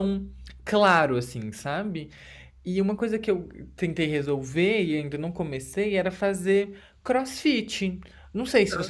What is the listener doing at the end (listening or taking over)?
listening